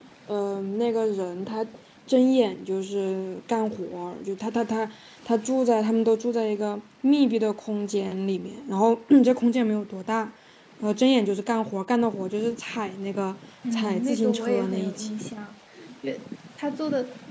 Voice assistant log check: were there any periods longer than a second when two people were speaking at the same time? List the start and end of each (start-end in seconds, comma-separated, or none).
13.7-15.2